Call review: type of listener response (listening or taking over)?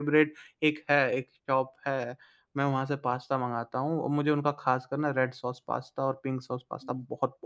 listening